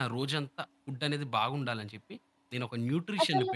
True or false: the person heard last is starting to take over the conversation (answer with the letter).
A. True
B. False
B